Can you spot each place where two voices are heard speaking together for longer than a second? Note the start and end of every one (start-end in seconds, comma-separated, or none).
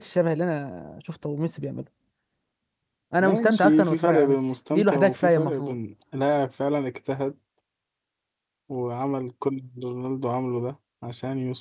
3.2-5.7